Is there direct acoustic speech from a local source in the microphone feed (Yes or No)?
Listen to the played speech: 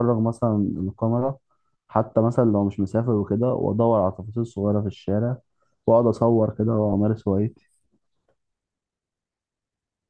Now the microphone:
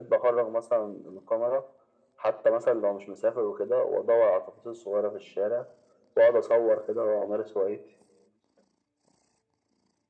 No